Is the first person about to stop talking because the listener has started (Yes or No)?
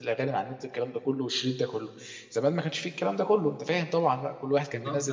Yes